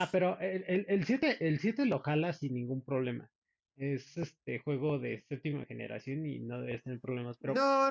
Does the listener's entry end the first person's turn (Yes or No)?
Yes